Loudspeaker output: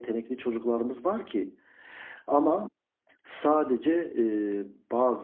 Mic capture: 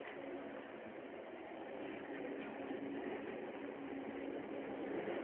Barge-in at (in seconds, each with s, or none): none